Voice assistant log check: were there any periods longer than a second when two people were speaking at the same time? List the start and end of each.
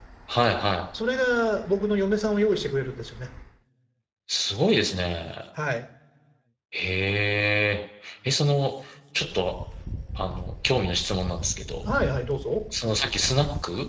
none

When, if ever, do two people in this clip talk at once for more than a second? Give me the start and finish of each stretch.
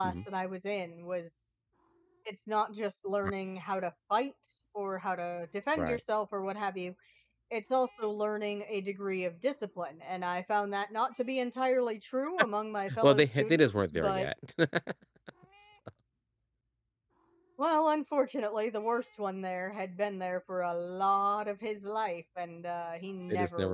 13.0-14.3

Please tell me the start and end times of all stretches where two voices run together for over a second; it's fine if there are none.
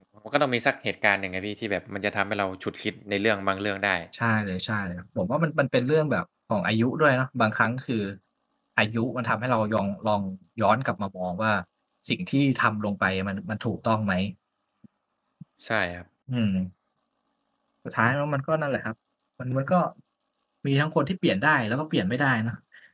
none

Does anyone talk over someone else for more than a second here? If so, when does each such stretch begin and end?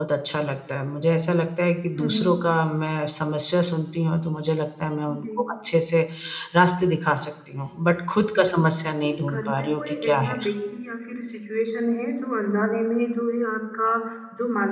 9.0-10.4

